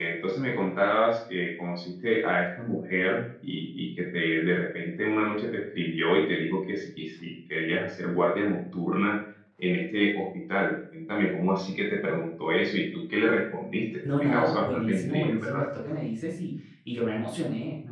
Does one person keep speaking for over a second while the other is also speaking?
Yes, from 14.0 s

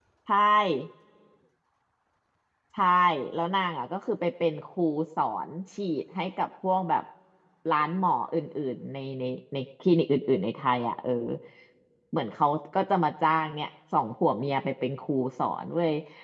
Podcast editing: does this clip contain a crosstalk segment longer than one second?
No

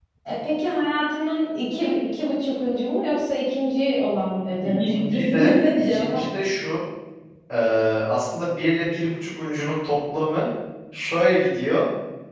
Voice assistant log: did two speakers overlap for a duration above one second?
Yes, from 4.6 s

